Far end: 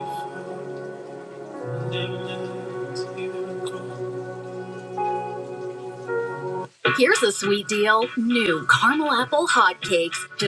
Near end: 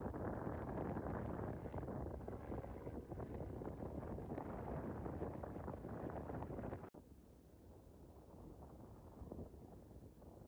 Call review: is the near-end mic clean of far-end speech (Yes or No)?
Yes